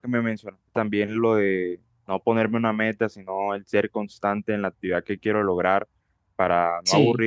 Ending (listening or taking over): listening